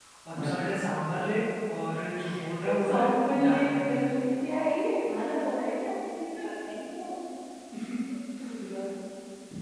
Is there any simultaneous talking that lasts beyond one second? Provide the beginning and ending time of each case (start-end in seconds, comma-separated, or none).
2.7-3.9